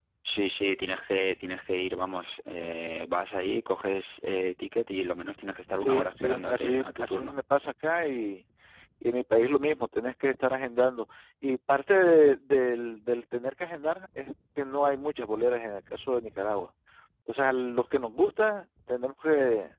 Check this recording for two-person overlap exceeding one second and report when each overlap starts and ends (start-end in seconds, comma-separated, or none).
5.8-7.3